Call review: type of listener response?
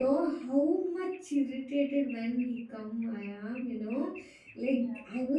listening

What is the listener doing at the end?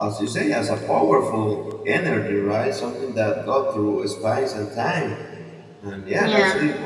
listening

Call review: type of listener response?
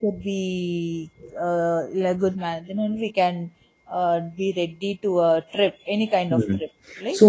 taking over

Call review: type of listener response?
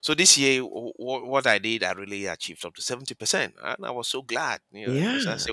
taking over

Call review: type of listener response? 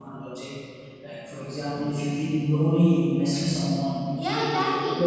listening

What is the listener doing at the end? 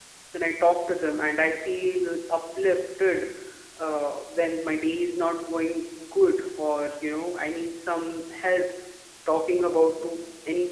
listening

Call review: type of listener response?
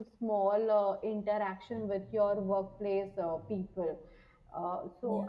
listening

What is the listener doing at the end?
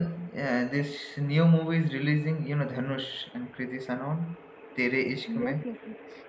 taking over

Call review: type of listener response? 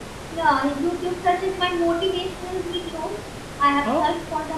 listening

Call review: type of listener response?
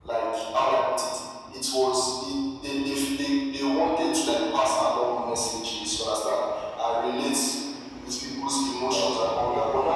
listening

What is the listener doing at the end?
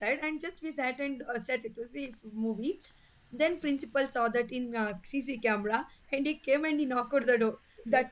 listening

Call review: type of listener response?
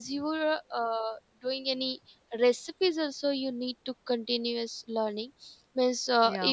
listening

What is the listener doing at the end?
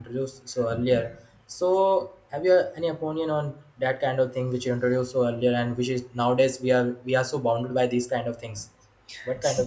taking over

